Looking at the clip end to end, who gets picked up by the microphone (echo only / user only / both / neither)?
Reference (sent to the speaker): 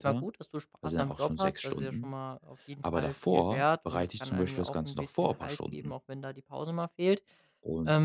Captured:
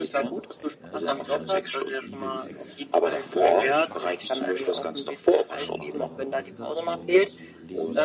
both